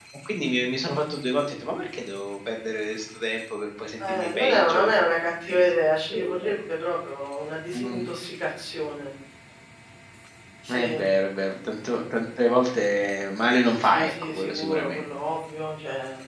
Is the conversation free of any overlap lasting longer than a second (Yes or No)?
No